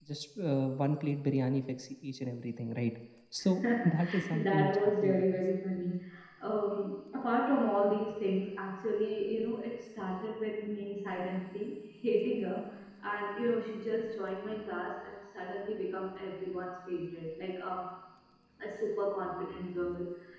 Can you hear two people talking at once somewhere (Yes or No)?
Yes